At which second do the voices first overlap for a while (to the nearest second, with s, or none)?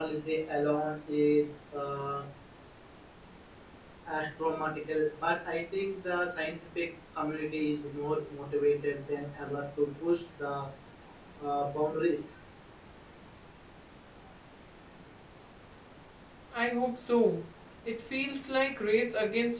none